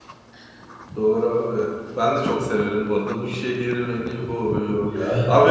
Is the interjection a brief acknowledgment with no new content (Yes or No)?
Yes